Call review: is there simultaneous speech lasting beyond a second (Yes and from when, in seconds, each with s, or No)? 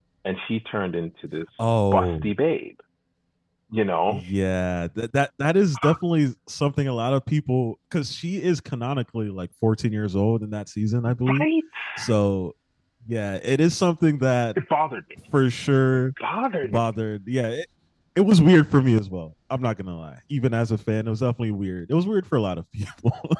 No